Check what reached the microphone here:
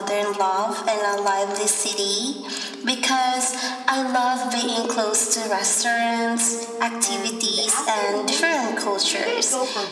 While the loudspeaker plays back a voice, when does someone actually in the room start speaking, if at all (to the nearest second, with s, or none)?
7 s